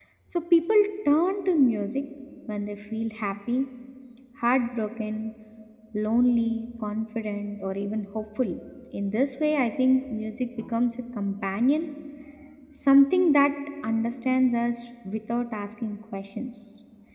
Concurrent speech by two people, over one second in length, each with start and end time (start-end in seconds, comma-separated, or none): none